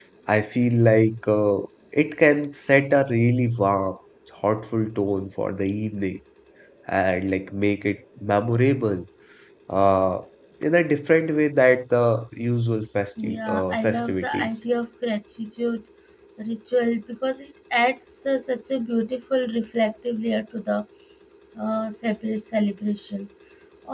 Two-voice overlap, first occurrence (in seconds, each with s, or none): 13.2 s